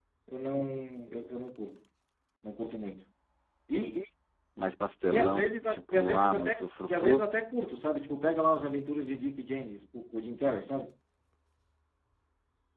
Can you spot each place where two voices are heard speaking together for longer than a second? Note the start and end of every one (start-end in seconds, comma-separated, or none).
5.1-7.3